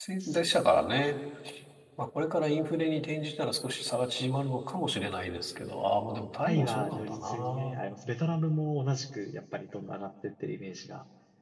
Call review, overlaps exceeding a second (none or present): present